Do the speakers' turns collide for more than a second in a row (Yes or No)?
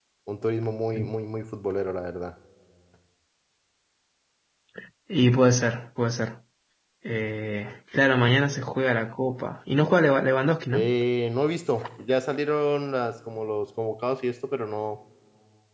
No